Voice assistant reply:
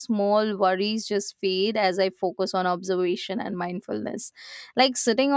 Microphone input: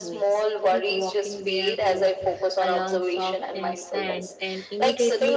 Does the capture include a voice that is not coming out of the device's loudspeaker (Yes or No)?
Yes